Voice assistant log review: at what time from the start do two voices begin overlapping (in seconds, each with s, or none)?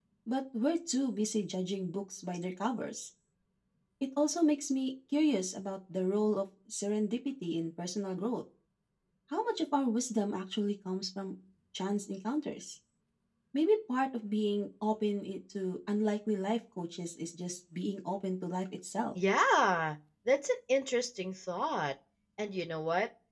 none